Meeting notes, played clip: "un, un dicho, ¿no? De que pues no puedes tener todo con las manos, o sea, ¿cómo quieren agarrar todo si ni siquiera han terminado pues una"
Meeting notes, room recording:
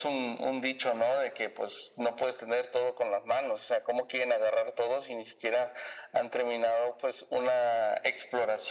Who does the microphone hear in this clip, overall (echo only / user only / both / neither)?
echo only